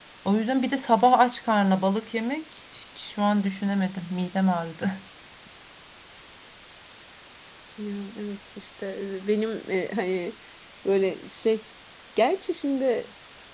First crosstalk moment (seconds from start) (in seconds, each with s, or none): none